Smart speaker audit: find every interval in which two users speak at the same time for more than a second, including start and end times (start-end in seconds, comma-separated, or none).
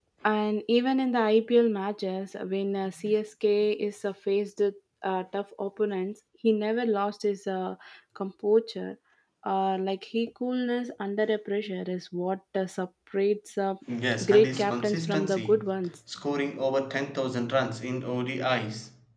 14.2-15.6